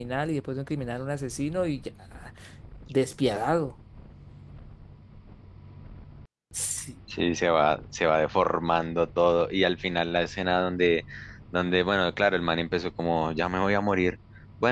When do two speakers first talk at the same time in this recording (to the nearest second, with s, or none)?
none